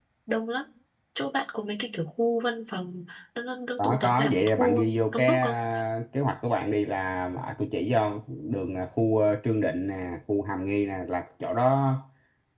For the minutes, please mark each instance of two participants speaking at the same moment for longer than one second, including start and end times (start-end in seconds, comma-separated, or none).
3.8-5.5